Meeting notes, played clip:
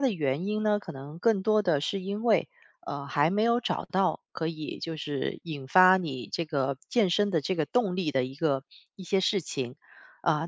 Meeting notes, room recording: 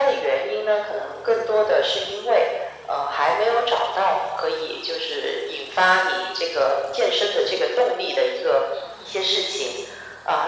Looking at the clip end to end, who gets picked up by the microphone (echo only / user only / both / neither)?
echo only